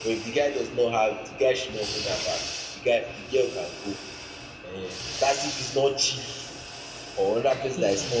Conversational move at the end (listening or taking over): listening